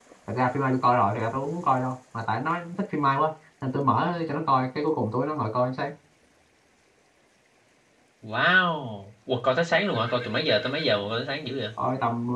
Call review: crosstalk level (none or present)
none